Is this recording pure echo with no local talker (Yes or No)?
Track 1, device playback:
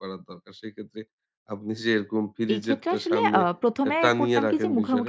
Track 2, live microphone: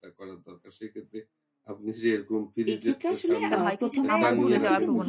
No